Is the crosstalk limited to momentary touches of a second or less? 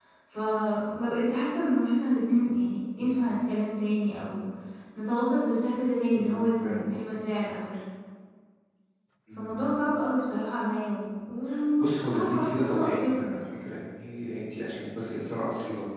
No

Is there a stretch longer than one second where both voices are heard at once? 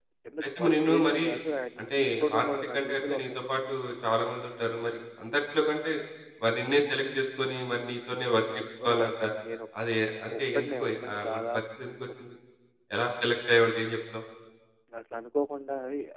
Yes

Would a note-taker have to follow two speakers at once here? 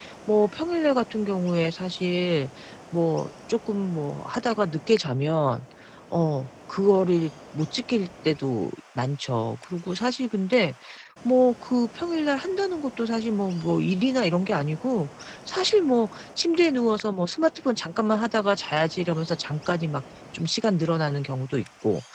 No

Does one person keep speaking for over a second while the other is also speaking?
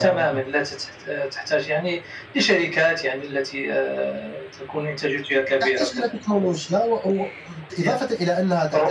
No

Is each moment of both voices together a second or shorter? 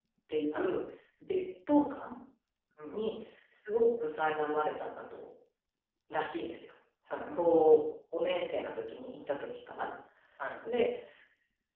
Yes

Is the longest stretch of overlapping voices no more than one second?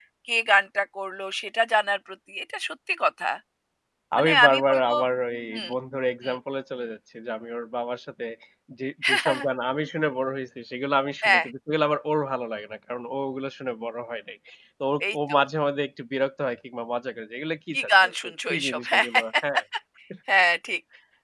No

